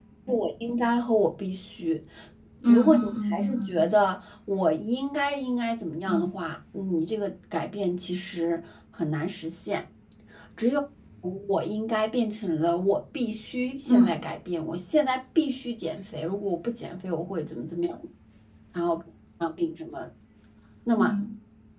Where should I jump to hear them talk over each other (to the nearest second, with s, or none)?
3 s